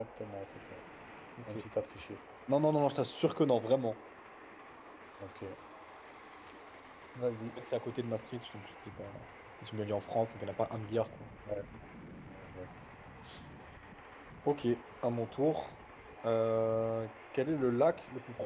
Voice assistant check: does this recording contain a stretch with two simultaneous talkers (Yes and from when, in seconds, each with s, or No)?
No